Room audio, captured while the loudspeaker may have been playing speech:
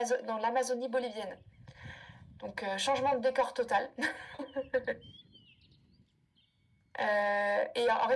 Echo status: present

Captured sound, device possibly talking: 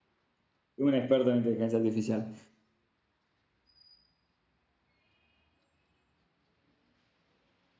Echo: none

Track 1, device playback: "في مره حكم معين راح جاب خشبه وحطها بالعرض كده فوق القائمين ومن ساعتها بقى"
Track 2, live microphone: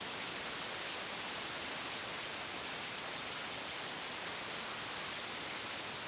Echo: none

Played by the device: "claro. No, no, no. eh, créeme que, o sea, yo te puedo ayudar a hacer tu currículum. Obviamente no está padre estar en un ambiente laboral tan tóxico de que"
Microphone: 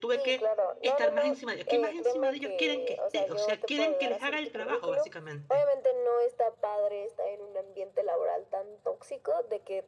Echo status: present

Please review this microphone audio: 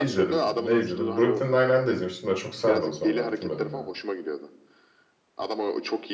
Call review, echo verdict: present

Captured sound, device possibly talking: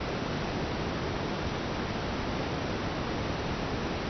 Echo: none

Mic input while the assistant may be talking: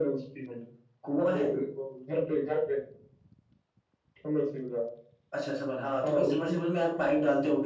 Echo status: present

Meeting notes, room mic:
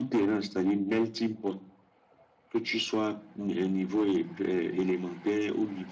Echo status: present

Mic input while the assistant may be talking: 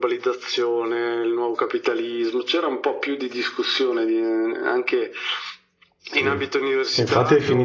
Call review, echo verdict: present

